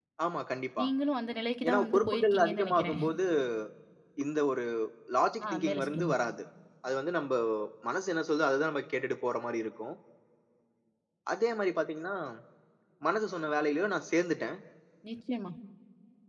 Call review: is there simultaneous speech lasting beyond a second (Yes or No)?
Yes